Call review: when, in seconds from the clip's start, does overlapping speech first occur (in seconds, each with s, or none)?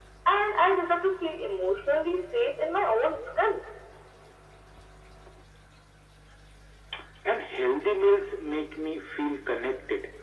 none